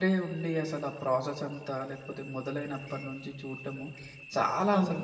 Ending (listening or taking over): listening